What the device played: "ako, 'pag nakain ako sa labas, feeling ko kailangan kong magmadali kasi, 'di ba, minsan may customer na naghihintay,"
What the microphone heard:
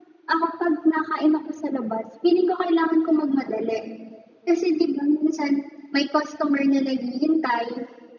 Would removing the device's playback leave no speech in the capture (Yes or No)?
Yes